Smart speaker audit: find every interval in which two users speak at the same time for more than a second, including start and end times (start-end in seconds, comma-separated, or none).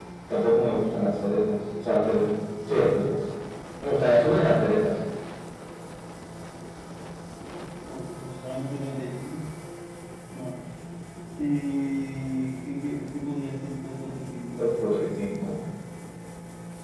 none